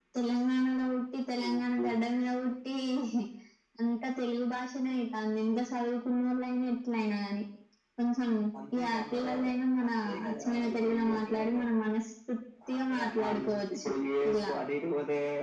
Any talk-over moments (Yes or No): Yes